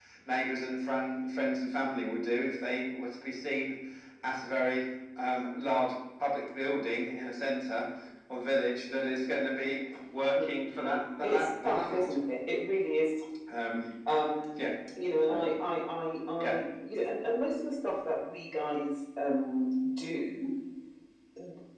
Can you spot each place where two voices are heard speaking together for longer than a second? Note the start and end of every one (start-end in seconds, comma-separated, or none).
10.8-12.1